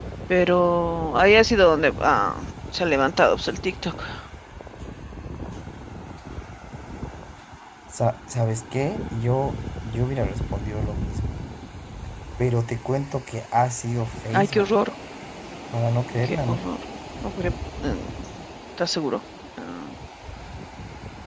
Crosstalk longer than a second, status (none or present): none